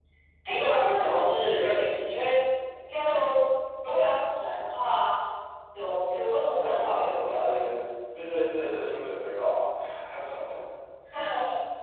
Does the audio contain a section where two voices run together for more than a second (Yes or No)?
Yes